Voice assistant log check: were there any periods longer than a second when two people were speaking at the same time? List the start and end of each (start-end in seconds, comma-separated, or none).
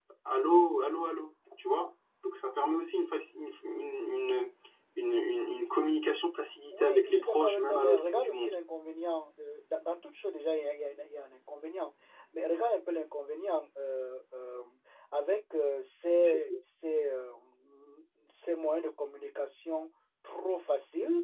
6.7-8.5